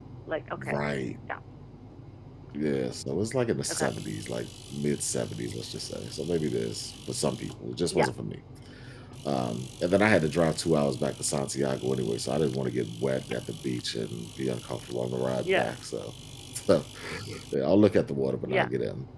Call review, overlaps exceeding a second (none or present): none